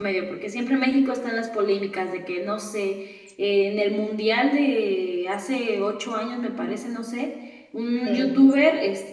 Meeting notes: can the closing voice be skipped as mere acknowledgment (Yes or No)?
Yes